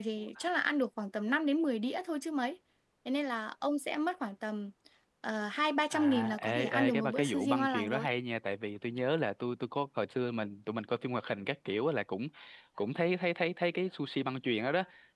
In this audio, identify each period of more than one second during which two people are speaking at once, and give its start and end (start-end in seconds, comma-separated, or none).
5.9-8.1